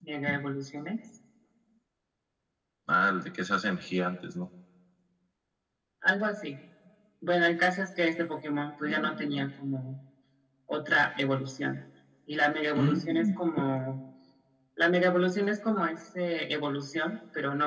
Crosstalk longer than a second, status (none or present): none